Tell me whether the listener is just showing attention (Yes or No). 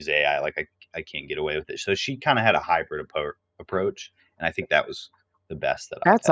No